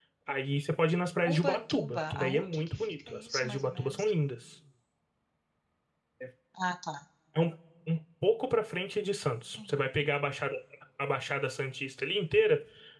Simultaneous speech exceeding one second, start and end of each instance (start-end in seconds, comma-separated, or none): 1.2-4.1